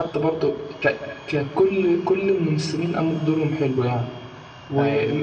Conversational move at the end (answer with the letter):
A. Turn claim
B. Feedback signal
B